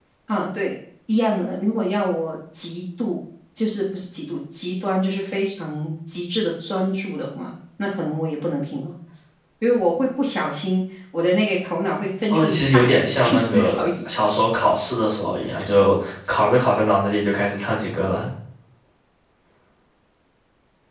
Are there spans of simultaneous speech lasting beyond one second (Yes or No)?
Yes